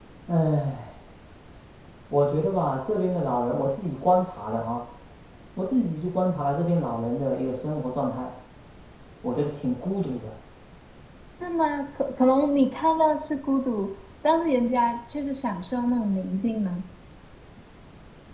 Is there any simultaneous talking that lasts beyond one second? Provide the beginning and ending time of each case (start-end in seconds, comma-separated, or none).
none